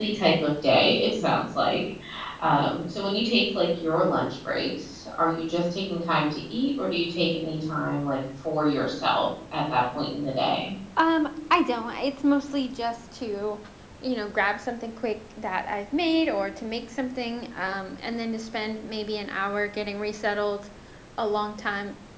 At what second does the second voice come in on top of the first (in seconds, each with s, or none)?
none